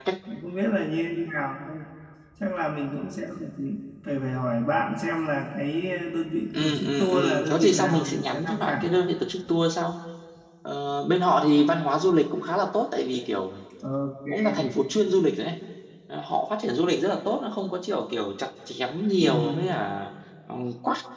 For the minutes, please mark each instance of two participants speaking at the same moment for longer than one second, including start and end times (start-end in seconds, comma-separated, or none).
6.6-8.8